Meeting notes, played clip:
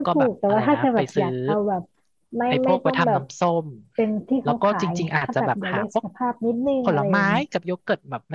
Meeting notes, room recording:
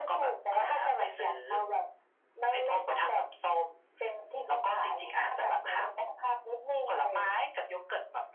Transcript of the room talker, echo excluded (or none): none